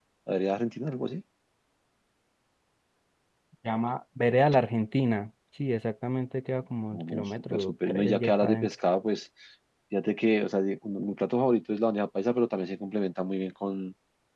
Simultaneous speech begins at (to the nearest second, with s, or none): 7 s